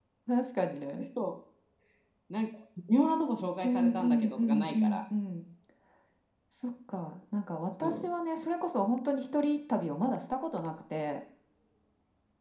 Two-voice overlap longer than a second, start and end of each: 3.6-5.0

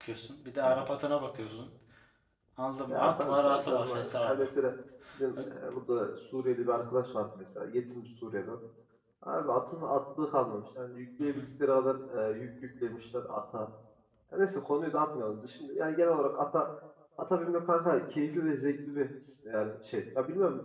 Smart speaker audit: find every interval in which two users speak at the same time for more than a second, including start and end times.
2.9-4.4

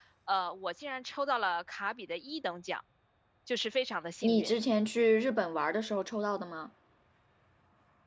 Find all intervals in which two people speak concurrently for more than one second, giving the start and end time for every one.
none

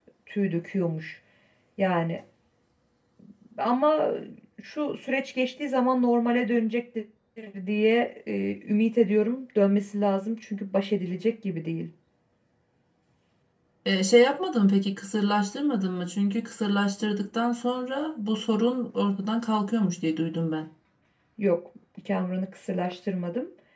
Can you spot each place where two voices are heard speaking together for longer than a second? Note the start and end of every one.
none

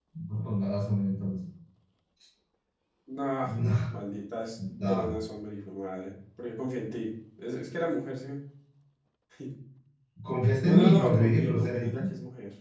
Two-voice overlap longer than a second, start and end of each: 10.7-12.1

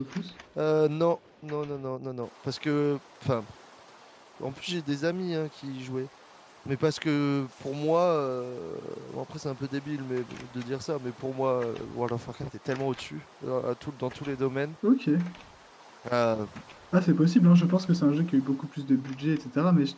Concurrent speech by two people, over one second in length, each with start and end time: none

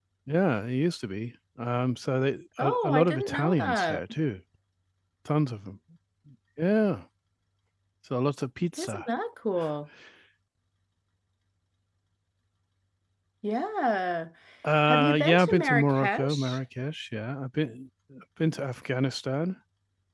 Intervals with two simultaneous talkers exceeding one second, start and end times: 2.6-4.0, 14.9-16.6

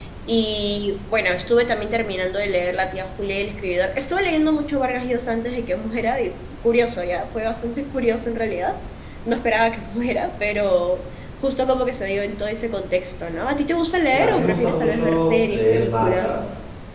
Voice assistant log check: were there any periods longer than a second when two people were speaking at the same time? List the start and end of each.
14.1-16.4

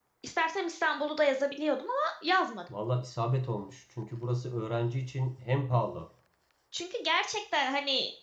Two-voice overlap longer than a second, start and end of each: none

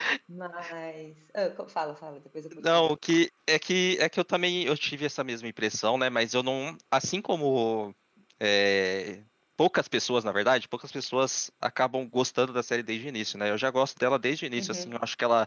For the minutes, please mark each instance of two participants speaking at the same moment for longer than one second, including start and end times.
none

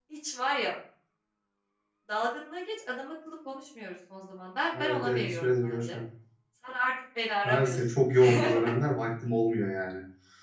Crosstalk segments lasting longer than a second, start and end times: 4.7-6.0

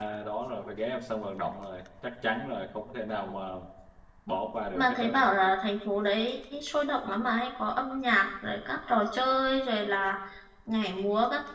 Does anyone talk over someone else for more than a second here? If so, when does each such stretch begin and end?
none

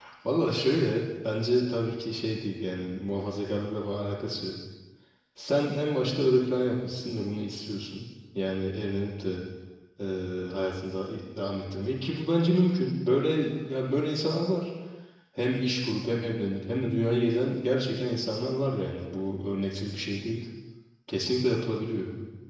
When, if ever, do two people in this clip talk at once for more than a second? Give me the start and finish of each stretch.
none

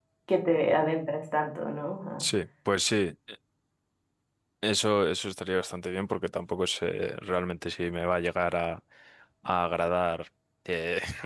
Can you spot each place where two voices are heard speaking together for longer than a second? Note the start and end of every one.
none

